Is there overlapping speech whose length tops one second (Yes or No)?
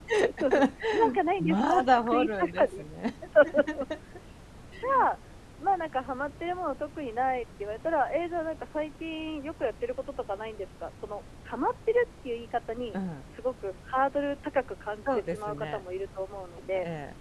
Yes